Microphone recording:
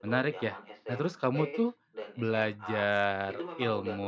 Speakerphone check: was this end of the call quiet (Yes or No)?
No